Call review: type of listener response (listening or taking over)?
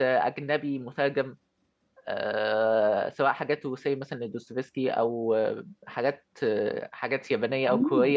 listening